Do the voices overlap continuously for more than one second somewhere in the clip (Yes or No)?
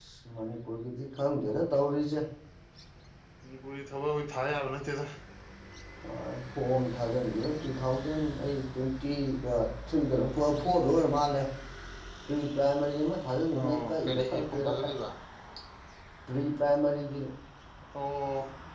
Yes